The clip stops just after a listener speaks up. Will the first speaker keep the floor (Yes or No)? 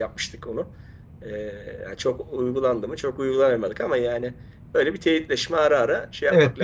No